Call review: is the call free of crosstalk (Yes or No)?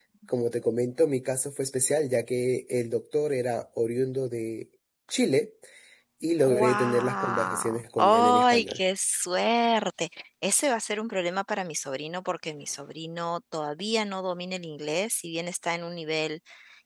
No